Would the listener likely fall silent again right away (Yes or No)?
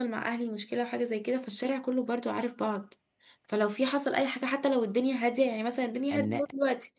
Yes